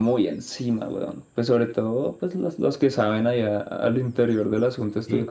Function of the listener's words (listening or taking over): taking over